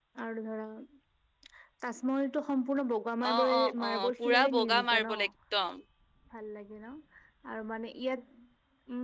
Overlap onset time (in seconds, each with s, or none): 3.2 s